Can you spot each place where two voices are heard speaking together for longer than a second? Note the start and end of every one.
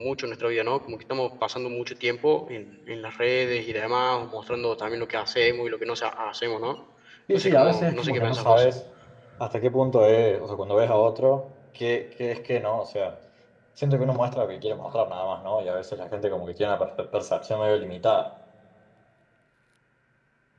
7.3-8.7

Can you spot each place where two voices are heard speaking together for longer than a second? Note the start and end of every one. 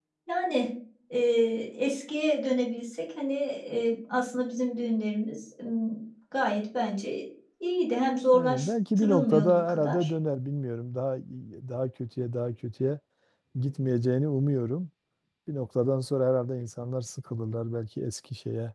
8.3-10.1

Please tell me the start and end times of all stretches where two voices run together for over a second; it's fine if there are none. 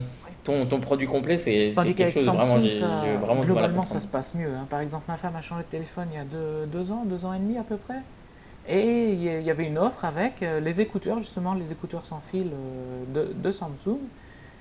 1.8-4.0

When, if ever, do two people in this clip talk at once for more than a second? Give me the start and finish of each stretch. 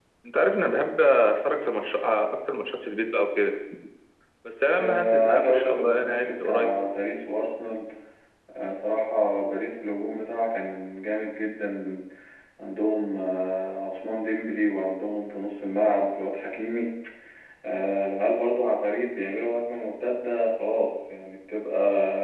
4.8-6.7

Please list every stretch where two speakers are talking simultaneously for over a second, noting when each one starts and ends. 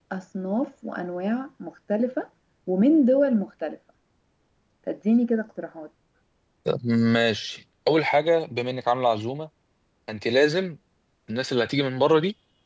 none

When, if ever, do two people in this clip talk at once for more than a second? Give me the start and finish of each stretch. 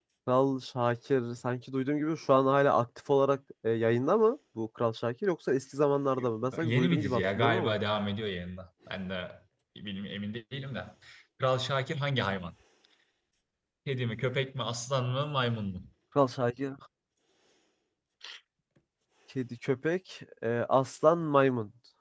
6.2-7.8

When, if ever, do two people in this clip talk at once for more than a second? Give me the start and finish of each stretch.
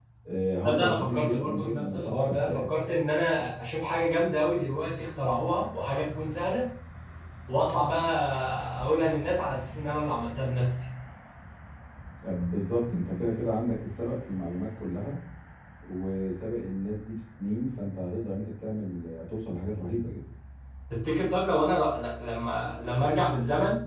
0.6-2.7

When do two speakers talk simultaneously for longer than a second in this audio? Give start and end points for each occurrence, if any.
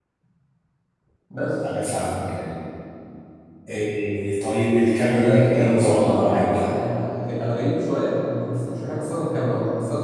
5.2-6.4

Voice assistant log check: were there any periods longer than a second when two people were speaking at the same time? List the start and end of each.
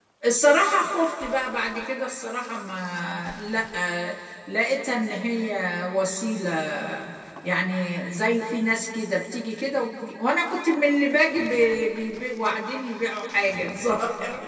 none

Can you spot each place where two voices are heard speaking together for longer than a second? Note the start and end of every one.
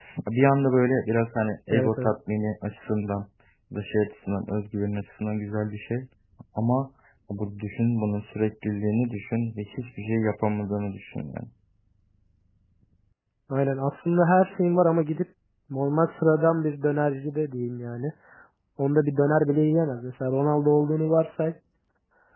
none

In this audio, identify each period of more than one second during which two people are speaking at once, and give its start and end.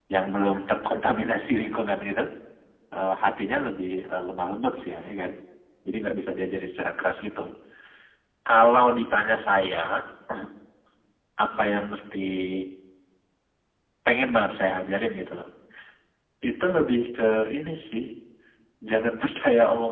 none

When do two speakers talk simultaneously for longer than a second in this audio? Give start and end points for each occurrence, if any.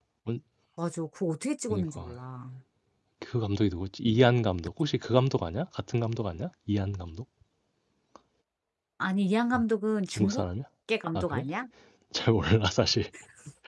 none

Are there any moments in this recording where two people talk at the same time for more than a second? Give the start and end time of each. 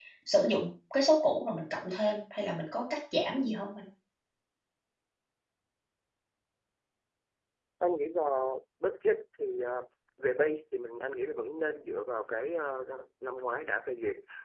none

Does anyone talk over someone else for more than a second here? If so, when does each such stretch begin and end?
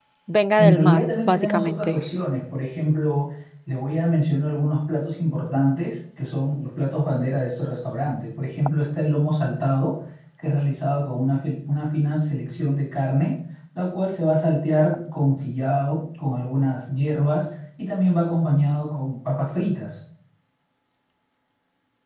0.6-2.0

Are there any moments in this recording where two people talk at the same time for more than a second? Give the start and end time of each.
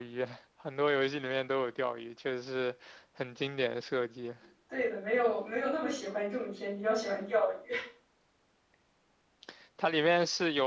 none

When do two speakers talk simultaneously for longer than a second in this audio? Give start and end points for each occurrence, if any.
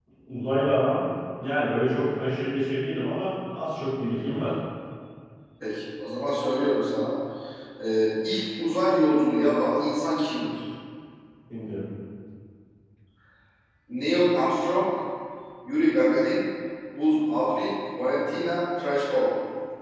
none

